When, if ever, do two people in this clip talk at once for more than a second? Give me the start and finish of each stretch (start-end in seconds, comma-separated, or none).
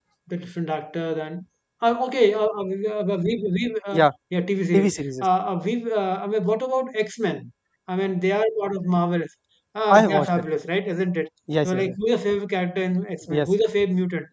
none